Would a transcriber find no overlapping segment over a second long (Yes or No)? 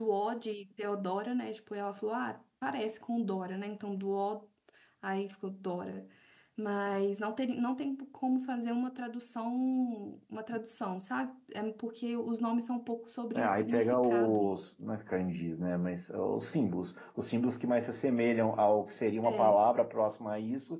No